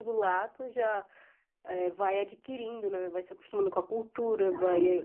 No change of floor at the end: Yes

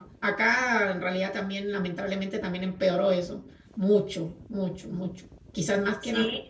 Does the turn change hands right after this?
No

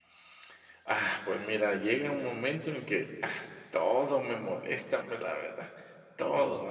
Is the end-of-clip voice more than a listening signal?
No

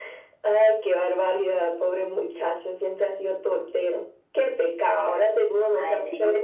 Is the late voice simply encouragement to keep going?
Yes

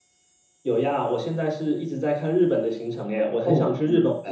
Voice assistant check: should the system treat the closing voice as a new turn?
Yes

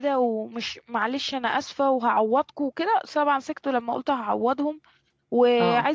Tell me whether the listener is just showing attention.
Yes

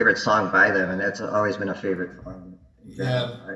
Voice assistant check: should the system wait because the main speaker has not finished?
No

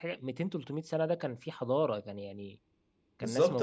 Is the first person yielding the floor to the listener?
Yes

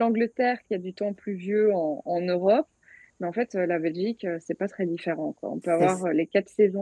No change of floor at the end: Yes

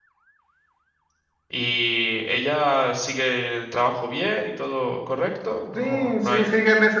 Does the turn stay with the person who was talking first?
No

